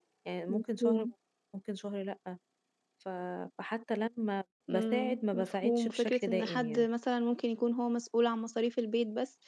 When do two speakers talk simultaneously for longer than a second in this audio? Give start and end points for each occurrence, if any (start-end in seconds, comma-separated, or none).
4.7-6.9